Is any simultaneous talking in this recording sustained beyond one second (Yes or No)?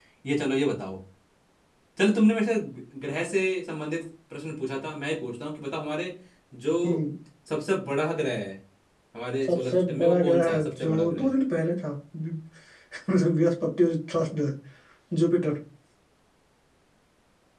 Yes